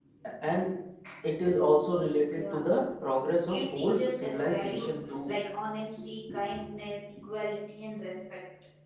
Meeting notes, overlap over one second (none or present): present